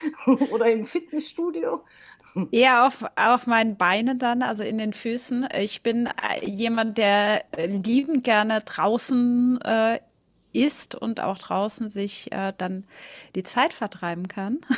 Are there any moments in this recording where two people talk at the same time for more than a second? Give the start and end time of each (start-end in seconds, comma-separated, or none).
none